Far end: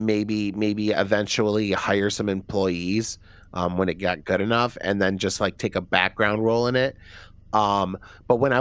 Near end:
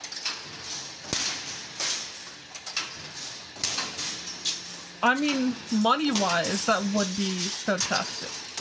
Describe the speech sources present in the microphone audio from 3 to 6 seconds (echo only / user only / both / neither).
user only